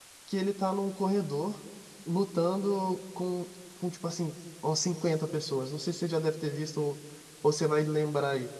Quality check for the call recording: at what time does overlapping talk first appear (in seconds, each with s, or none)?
none